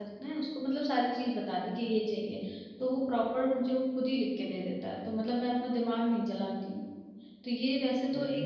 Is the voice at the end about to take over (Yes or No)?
Yes